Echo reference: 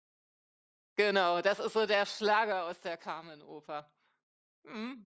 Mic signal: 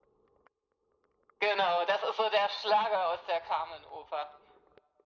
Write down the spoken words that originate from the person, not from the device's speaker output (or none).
none